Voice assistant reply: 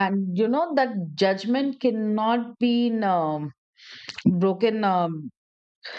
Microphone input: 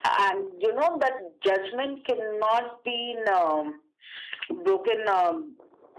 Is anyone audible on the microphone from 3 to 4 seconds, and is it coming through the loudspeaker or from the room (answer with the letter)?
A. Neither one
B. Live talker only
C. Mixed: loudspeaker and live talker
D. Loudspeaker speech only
D